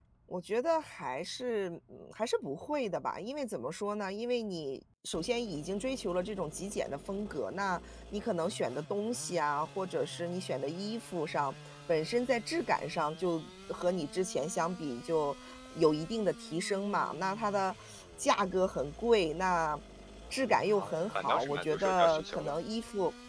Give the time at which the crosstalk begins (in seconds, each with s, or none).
20.8 s